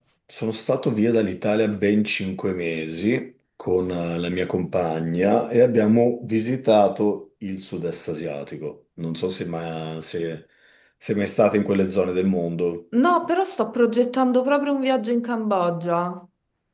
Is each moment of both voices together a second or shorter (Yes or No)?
Yes